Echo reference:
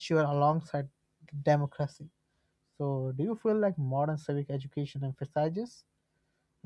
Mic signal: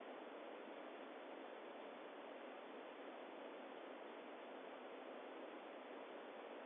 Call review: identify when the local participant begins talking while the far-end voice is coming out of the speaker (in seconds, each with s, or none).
none